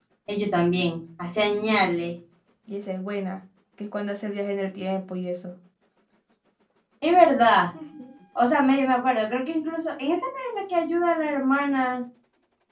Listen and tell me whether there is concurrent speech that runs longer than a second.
No

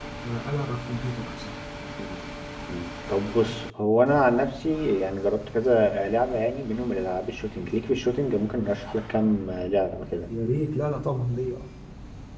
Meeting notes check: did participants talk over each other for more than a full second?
No

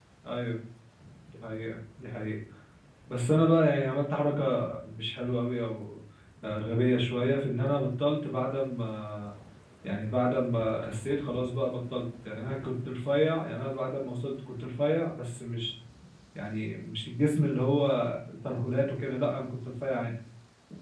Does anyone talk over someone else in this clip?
No

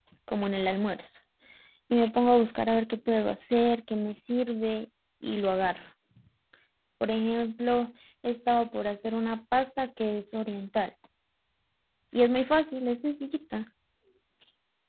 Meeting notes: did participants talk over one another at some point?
No

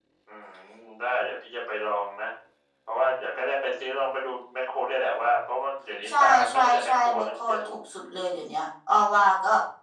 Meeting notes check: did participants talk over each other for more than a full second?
Yes, from 6.0 s

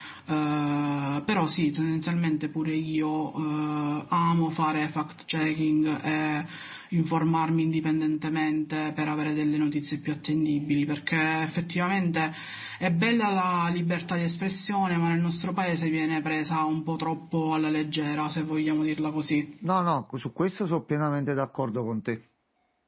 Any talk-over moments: No

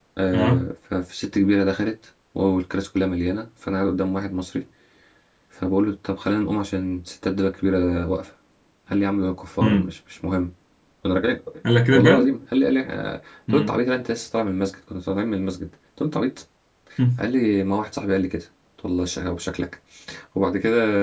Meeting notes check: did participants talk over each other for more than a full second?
No

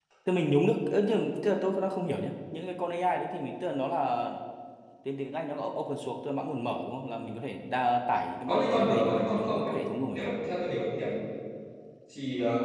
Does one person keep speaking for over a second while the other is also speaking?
Yes, from 8.5 s

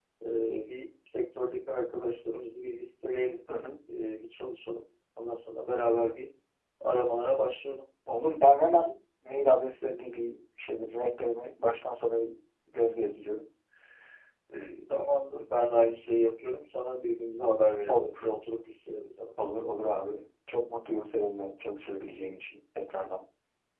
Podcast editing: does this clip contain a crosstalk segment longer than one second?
No

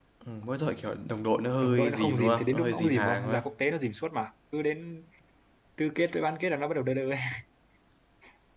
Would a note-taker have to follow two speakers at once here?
Yes, from 1.6 s

